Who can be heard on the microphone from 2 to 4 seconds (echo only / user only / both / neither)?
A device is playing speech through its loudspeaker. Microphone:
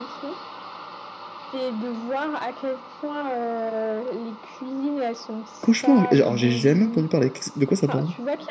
echo only